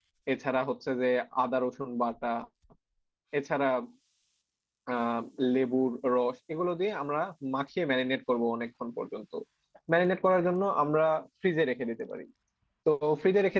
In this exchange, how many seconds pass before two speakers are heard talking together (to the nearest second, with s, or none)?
none